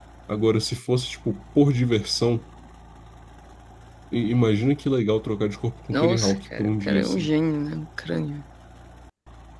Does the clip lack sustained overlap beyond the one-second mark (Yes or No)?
No